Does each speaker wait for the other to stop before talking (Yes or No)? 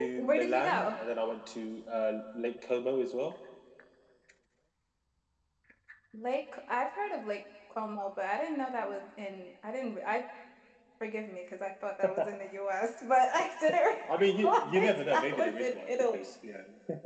No